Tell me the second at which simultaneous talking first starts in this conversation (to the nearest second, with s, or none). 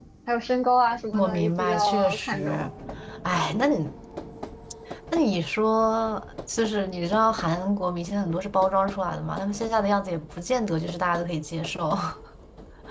1 s